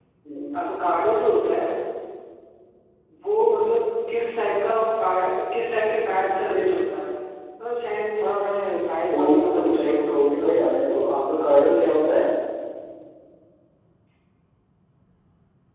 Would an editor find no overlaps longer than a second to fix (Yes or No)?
No